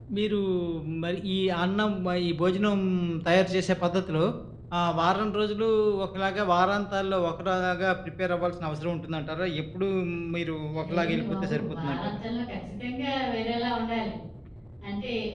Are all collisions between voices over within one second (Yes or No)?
No